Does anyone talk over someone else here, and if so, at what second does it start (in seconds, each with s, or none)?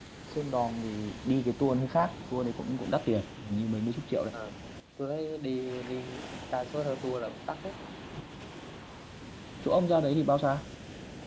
none